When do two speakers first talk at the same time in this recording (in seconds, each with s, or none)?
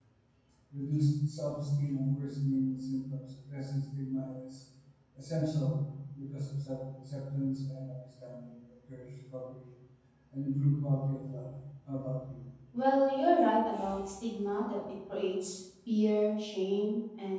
none